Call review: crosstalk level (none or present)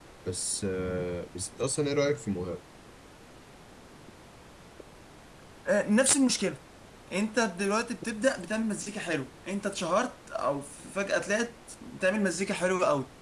none